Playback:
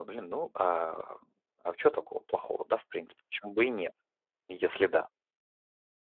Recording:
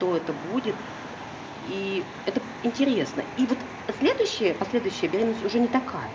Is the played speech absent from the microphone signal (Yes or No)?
Yes